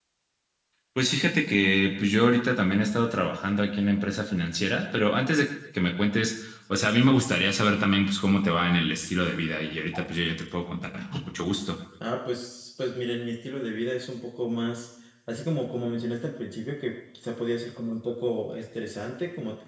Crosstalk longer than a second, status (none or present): none